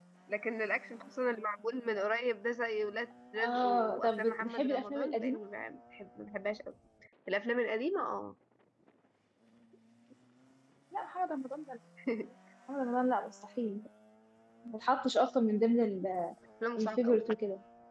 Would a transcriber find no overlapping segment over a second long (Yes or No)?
No